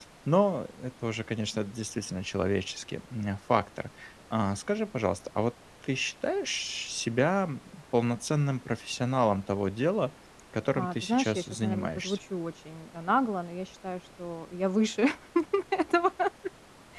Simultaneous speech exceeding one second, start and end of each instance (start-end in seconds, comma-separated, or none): 10.8-12.2